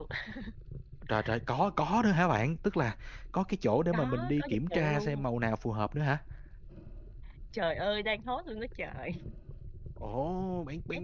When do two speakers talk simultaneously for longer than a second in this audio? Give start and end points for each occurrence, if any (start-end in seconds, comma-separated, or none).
3.9-5.2